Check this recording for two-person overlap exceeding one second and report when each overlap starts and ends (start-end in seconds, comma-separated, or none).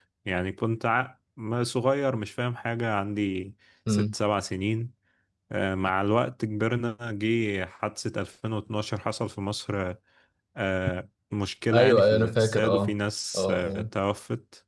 11.7-12.9